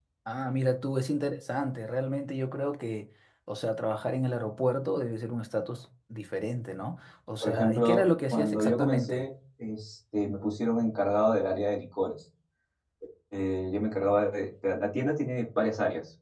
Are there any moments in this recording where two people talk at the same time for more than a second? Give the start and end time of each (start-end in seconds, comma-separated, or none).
7.4-9.2